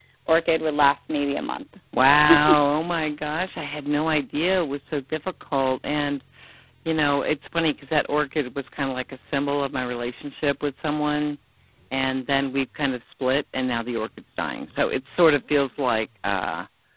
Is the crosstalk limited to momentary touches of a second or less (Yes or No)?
Yes